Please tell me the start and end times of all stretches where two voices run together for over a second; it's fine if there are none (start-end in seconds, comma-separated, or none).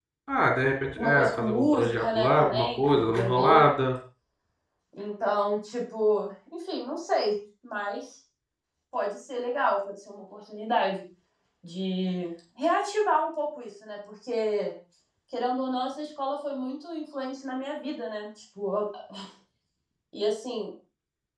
1.0-3.7